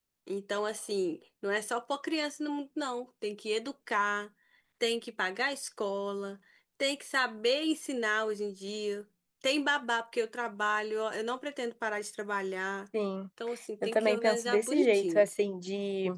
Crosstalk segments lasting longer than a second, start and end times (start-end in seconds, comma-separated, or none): 13.8-15.3